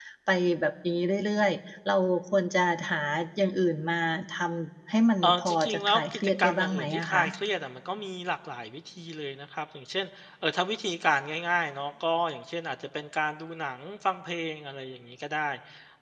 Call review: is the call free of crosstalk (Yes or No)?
No